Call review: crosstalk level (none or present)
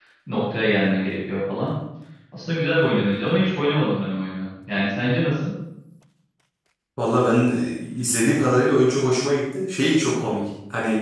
none